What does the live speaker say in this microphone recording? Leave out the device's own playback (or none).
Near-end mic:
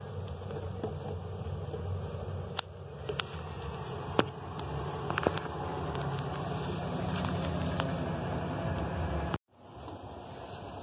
none